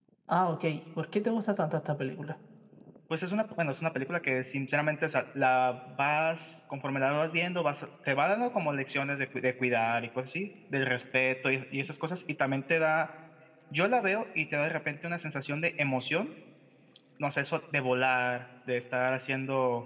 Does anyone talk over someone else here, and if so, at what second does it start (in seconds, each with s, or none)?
none